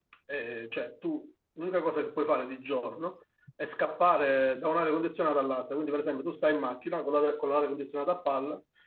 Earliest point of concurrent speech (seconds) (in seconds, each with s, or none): none